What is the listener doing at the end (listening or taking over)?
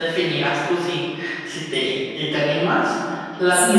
taking over